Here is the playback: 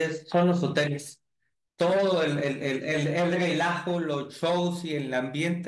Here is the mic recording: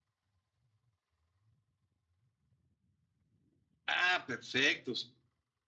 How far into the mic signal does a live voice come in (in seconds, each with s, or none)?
3.9 s